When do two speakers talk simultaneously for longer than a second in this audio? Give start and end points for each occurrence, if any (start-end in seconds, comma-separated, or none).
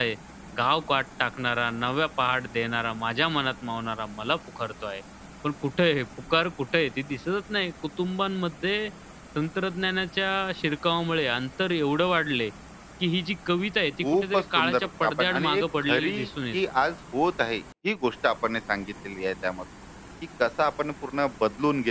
14.1-16.1